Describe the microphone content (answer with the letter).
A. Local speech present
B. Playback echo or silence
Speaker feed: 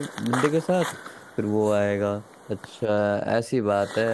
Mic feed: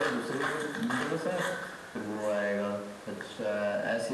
B